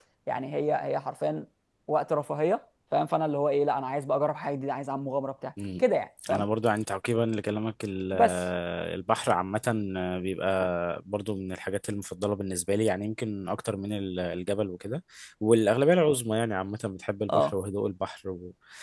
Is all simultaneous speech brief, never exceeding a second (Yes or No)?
Yes